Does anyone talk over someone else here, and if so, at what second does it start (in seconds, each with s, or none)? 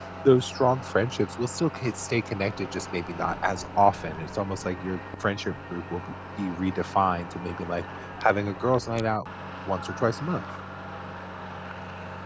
none